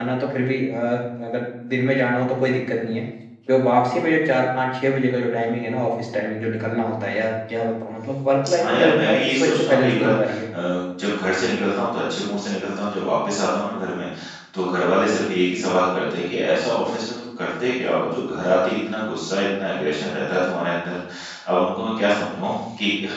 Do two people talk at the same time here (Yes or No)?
Yes